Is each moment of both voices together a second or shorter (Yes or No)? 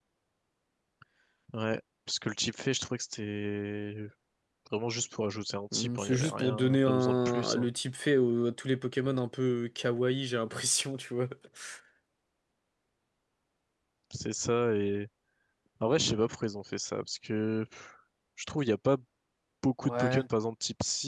No